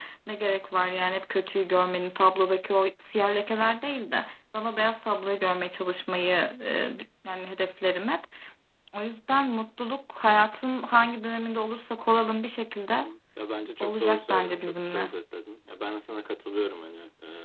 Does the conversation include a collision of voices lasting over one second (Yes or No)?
Yes